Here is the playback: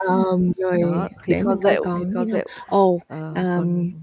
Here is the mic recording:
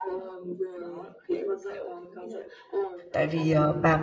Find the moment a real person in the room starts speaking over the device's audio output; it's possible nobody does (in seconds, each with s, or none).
3.1 s